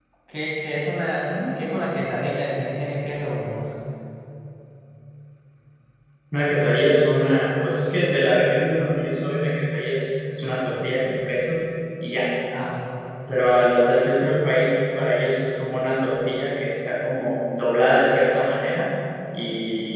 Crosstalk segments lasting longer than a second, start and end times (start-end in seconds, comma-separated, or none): none